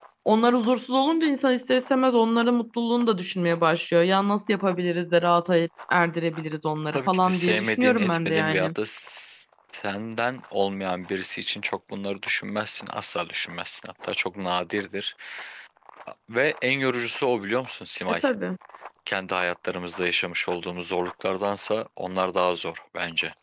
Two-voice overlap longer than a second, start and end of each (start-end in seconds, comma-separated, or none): 6.9-8.7